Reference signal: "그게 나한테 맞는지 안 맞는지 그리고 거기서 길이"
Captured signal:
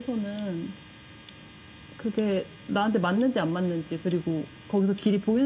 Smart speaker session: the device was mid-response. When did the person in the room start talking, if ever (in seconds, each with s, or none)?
none